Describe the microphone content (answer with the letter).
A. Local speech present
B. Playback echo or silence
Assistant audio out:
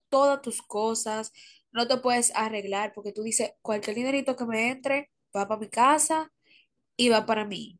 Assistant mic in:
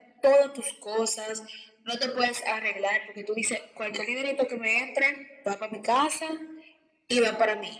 B